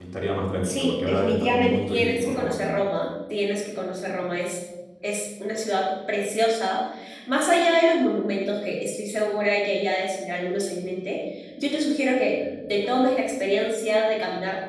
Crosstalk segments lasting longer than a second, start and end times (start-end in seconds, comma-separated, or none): 0.6-2.6